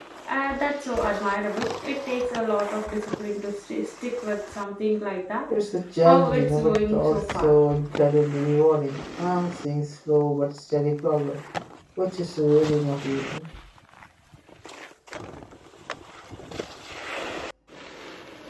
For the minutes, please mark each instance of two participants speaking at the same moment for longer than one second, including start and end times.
6.0-7.5

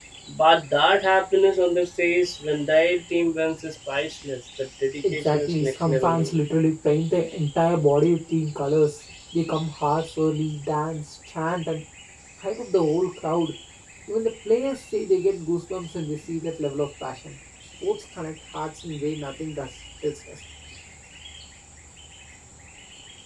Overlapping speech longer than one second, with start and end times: 5.1-6.4

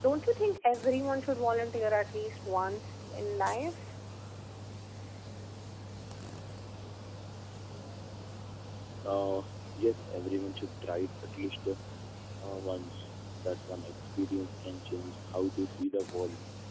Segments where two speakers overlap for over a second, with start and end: none

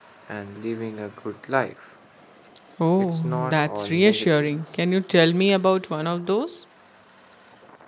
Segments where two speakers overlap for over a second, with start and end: 3.0-4.5

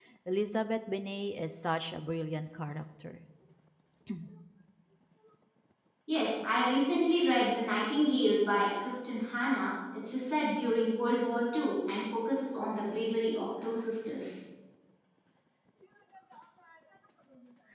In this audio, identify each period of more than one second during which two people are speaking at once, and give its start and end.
none

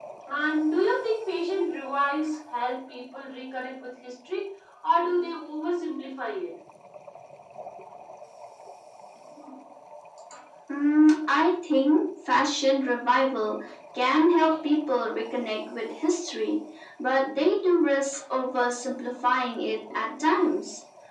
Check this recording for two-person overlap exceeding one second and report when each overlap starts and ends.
none

